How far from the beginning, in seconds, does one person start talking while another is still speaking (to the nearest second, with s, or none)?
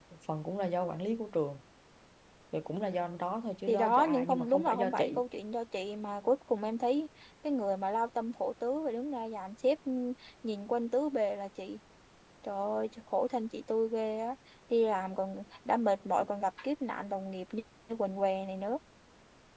4 s